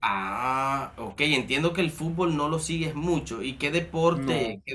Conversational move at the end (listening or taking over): listening